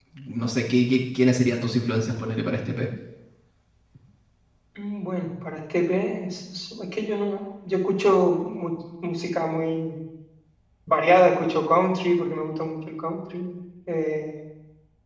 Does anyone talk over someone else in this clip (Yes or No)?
No